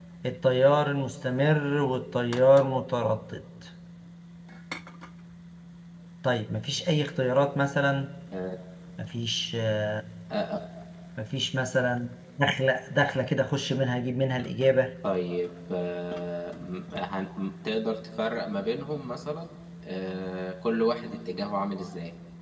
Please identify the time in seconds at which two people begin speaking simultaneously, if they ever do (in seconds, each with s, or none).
none